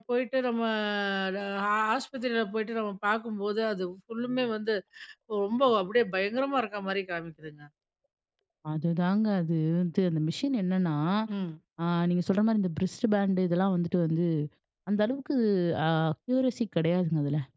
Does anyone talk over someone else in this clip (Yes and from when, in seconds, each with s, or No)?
No